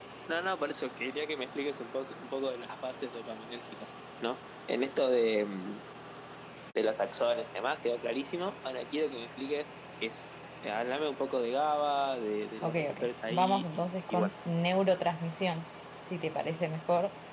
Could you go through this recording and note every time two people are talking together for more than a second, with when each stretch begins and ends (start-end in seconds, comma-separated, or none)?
12.6-14.3